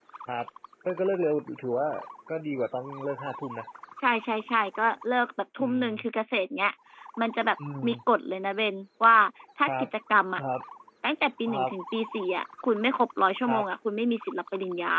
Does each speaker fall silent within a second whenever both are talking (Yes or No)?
Yes